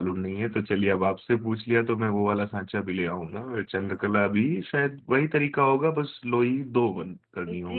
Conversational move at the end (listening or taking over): taking over